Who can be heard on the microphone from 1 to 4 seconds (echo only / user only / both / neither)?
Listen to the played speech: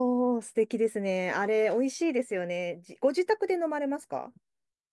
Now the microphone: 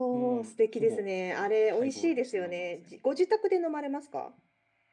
both